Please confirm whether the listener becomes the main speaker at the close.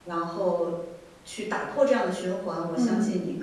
No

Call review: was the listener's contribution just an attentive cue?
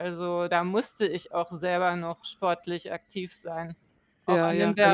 No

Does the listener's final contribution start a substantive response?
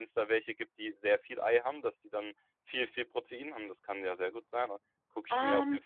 Yes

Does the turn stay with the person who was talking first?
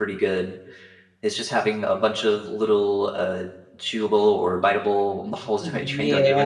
No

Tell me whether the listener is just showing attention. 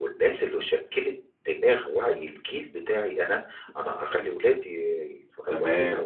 No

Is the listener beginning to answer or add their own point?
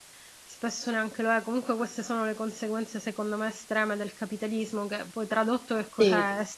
No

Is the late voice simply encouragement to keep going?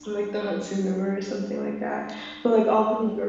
Yes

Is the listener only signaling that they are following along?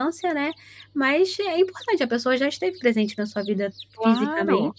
No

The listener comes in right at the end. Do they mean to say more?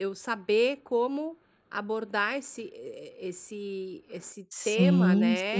Yes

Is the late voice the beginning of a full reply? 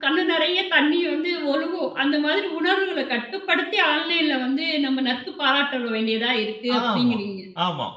Yes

